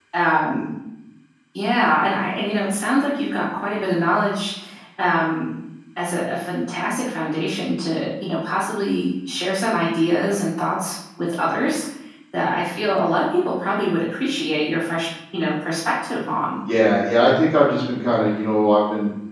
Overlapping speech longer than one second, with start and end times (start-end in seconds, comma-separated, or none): none